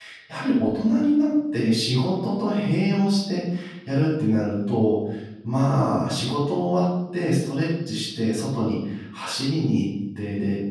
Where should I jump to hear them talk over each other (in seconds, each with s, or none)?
none